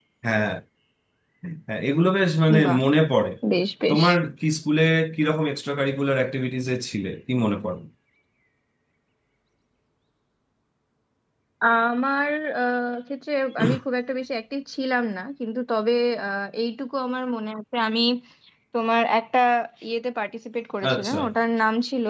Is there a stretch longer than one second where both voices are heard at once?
No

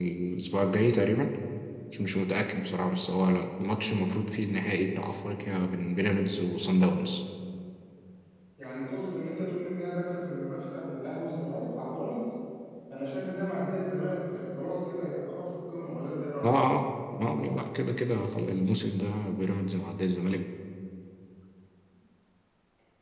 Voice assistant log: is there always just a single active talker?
Yes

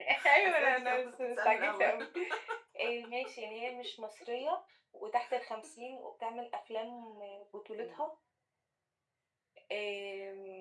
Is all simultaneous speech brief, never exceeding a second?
No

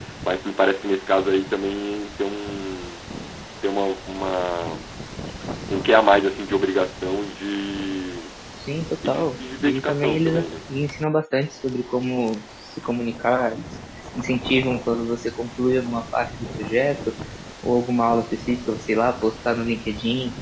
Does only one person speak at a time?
No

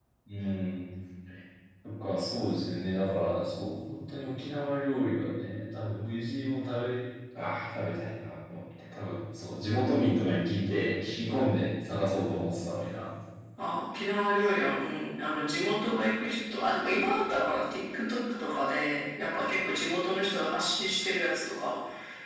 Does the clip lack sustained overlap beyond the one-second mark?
Yes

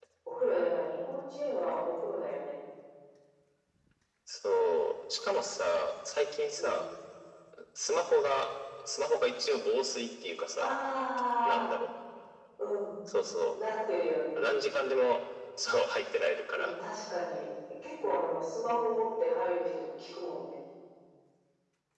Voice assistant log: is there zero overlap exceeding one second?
Yes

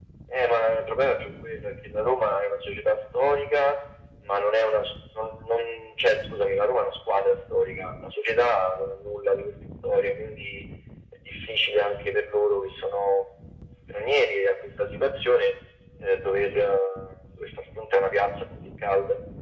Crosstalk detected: No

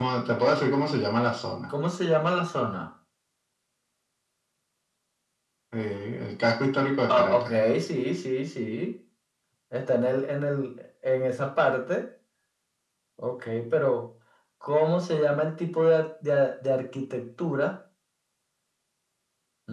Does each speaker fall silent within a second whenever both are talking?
Yes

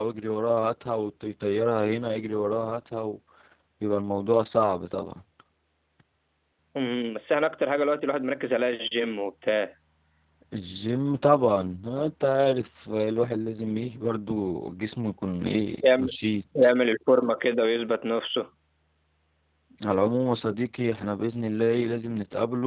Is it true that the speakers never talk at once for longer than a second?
Yes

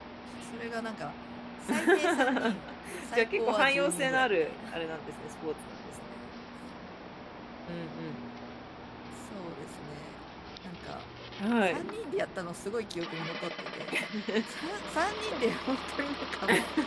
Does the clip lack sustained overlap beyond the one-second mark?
No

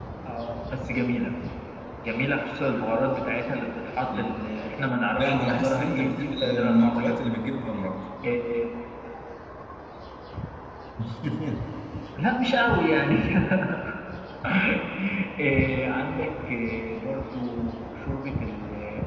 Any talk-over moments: Yes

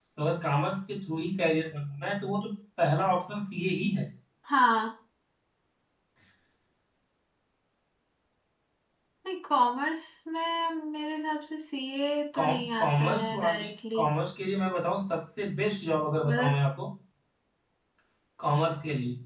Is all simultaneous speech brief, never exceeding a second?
No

